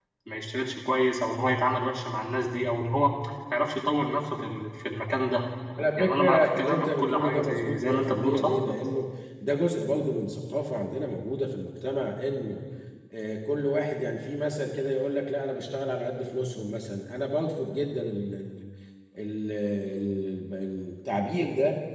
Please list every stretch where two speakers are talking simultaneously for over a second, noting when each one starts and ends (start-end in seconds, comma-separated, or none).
6.0-8.6